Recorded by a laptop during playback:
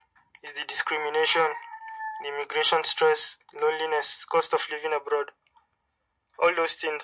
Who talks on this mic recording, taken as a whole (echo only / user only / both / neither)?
echo only